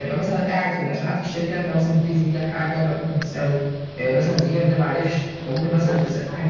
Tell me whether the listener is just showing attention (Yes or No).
Yes